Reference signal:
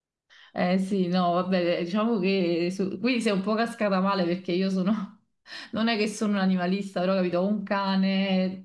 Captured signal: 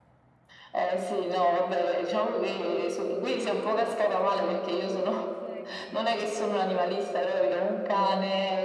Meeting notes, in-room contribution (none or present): present